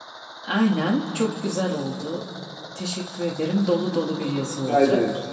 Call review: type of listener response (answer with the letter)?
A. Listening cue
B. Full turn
B